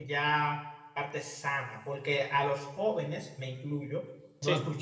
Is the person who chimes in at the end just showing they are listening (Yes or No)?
Yes